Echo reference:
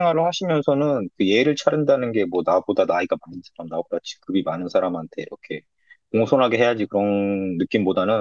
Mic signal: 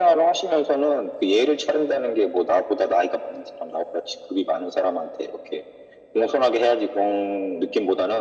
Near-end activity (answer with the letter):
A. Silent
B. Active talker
A